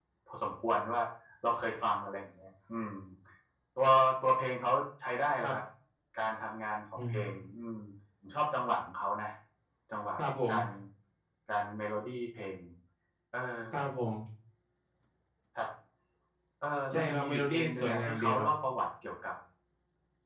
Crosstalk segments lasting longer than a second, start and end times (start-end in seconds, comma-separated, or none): 16.9-18.5